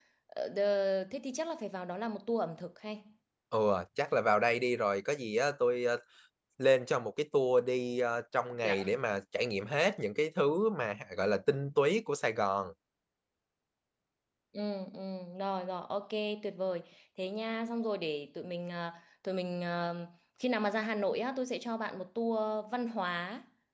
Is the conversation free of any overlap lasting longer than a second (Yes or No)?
Yes